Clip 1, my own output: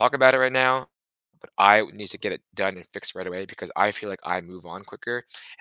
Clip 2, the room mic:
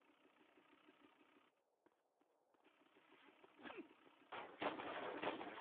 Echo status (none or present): none